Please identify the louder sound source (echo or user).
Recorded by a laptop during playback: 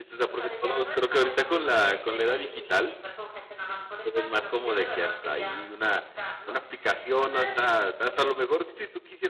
user